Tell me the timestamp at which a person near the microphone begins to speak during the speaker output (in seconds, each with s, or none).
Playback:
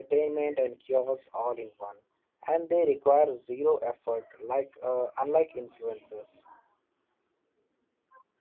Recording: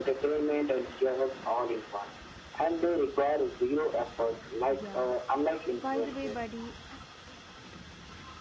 4.7 s